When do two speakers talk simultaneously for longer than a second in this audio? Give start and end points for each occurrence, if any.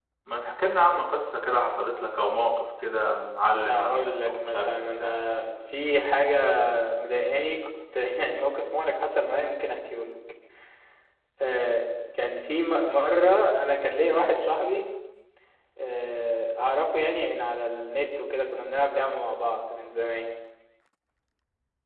3.7-5.2

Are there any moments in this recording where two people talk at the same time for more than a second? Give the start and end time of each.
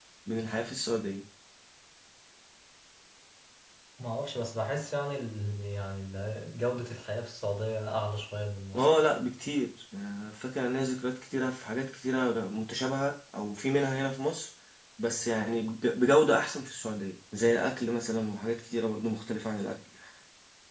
none

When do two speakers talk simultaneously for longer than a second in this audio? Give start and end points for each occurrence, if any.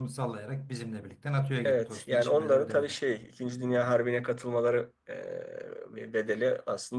1.6-3.0

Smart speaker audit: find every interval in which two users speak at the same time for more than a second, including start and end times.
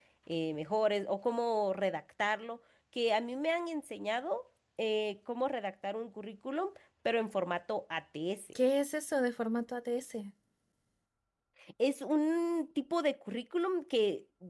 none

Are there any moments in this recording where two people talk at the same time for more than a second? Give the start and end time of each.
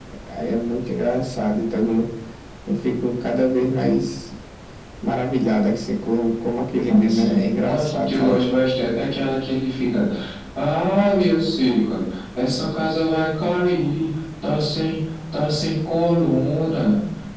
6.8-8.4

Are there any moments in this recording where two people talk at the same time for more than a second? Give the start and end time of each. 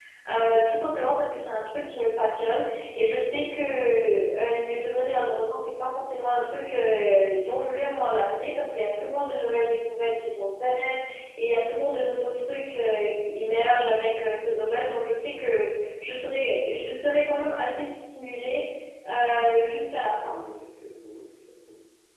none

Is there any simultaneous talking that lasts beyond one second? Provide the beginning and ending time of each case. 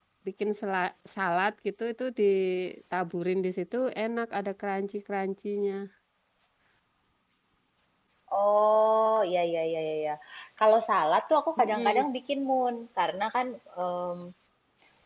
none

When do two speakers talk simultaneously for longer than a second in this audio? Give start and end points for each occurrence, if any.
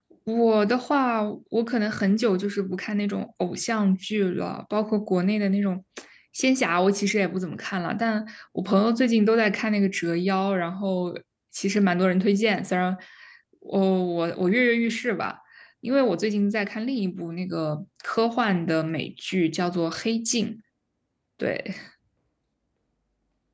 none

